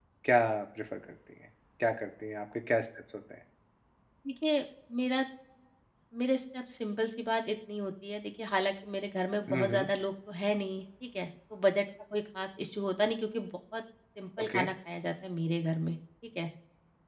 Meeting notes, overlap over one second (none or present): none